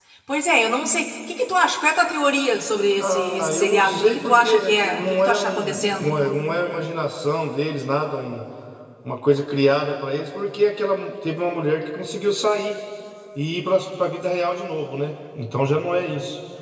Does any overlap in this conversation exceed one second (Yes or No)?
Yes